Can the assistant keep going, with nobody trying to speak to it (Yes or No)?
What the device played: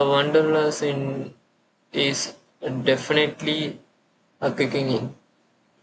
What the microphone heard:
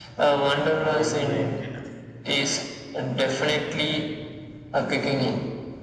No